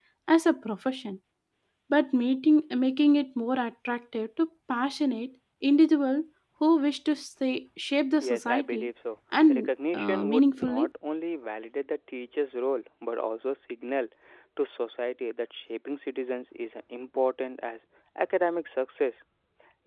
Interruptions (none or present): present